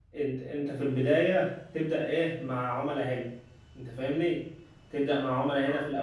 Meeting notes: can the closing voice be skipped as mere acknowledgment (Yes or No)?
Yes